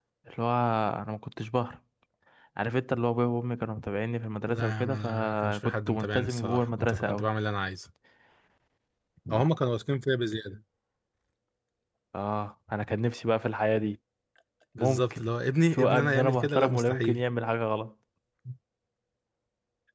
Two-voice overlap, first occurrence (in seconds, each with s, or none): 4.5 s